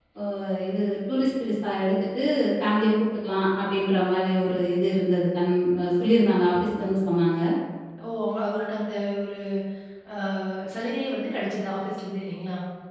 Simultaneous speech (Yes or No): No